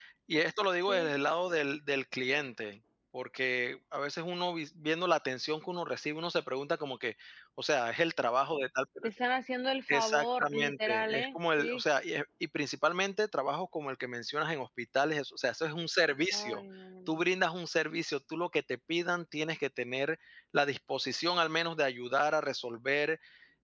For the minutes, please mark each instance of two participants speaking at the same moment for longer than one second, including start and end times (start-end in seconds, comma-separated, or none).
9.9-11.8